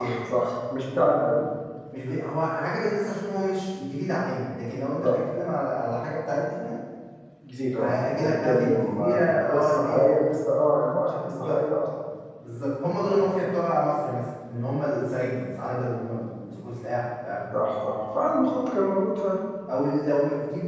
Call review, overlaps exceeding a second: present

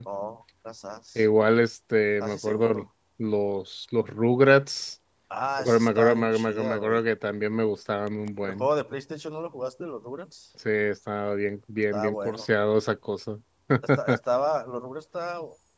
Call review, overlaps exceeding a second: present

